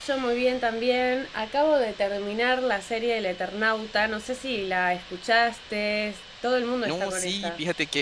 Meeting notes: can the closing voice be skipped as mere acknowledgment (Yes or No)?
No